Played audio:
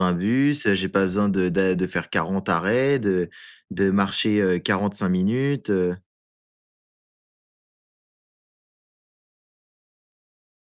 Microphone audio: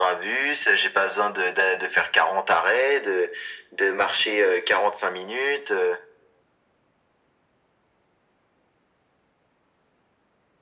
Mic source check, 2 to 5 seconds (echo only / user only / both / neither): echo only